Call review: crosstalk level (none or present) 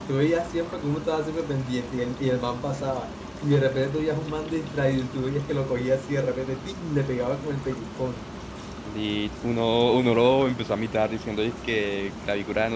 none